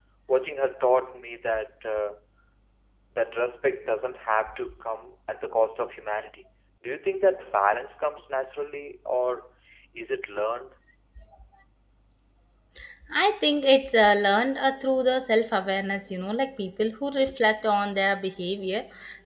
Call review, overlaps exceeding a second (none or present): none